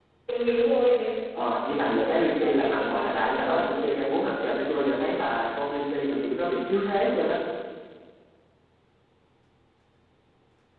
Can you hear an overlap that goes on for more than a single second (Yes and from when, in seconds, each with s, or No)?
Yes, from 1.7 s